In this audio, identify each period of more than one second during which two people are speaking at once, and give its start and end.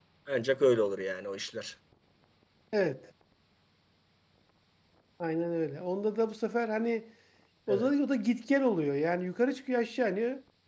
none

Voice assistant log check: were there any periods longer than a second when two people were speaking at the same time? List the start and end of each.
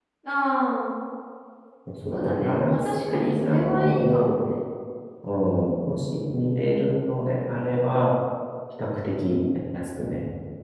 2.1-4.4

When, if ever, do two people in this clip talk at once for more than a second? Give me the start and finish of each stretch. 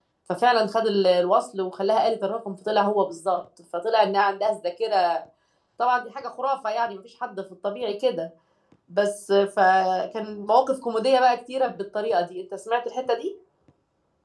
none

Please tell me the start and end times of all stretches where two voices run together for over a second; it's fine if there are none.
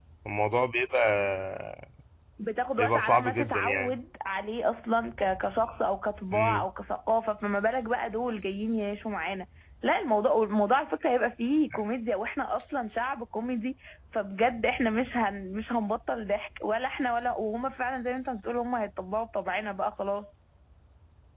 2.8-4.0

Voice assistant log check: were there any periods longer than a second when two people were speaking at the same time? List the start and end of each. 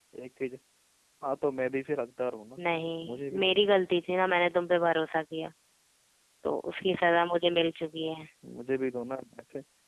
none

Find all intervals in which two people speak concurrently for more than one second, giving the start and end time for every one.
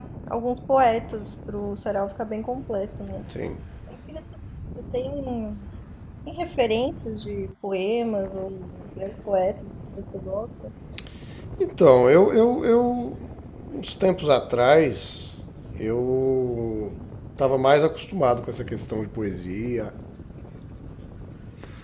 none

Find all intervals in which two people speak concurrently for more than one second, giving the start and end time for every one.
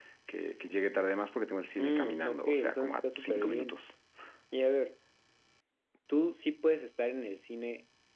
1.8-3.8

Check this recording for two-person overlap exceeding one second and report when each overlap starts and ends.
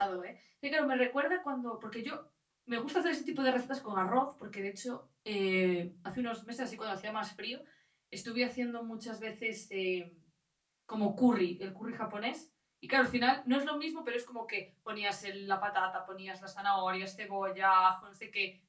none

